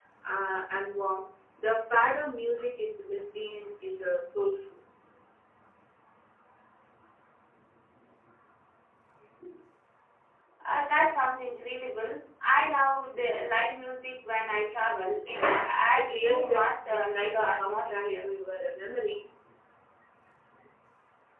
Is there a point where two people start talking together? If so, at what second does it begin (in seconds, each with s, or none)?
16.0 s